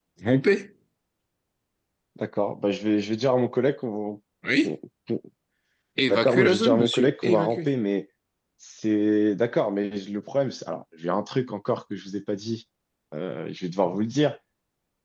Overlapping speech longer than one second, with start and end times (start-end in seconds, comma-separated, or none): 6.1-7.7